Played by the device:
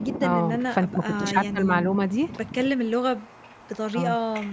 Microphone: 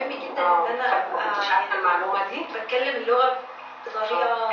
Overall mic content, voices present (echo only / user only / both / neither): echo only